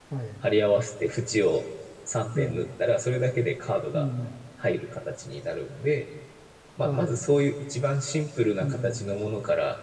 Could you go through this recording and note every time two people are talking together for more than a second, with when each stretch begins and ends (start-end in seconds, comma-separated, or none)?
none